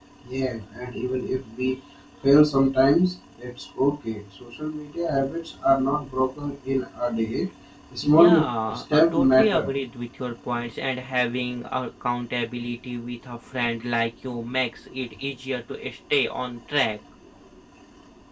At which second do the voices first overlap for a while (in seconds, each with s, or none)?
8.0 s